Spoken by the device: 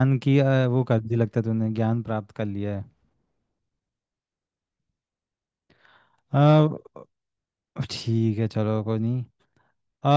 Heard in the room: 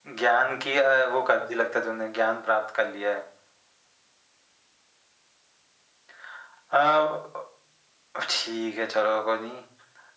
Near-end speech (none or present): none